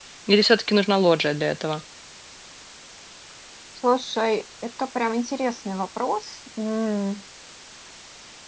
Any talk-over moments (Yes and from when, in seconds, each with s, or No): No